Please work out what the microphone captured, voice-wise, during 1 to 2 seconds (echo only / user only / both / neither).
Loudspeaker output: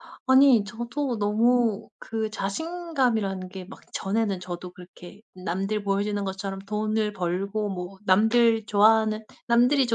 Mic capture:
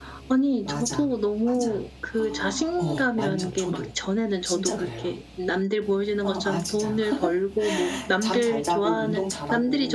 both